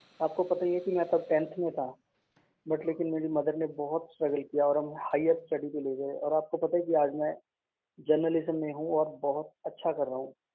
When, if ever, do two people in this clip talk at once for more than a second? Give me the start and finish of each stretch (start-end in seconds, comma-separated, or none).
none